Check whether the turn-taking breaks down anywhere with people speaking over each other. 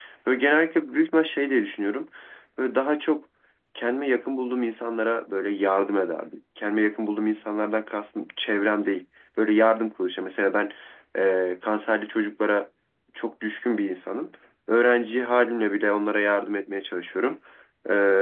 No

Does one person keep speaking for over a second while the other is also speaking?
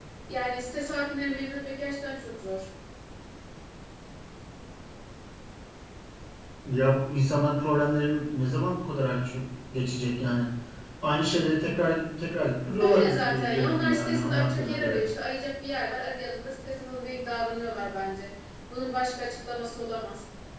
Yes, from 12.8 s

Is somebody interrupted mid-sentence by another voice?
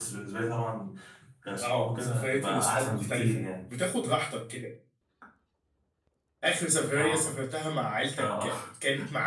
Yes, from 1.6 s

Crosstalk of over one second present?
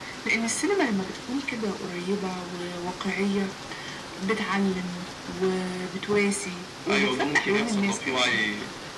Yes, from 6.9 s

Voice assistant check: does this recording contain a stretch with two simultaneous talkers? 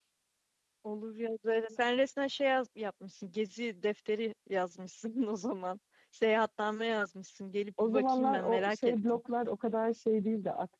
Yes, from 7.8 s

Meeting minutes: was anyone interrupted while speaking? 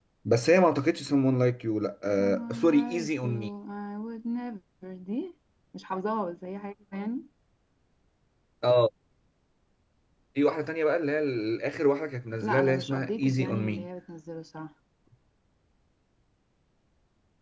Yes, from 2.2 s

